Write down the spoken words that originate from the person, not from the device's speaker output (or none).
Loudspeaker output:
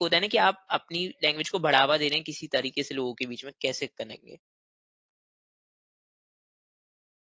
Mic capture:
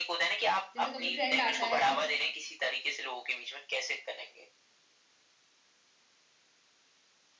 जैसे कभी ट्रेंड आता है कुछ